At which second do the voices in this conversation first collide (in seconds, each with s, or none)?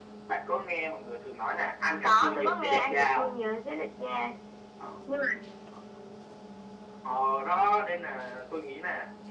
2.0 s